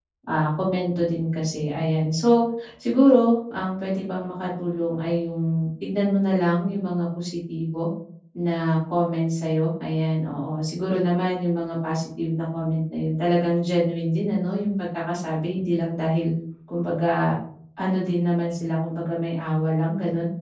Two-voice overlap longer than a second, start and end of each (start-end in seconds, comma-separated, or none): none